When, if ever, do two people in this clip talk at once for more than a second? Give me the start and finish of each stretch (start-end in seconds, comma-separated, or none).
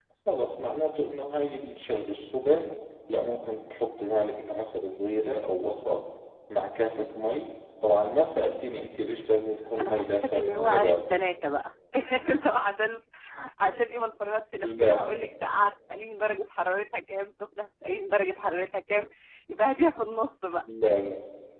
9.8-11.2